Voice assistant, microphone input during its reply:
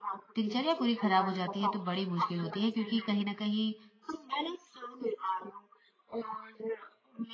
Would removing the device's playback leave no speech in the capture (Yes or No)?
No